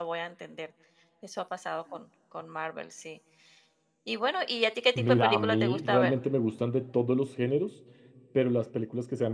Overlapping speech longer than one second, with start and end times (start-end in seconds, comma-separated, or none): 5.0-6.2